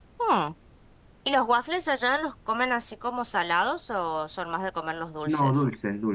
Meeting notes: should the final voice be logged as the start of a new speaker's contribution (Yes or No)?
Yes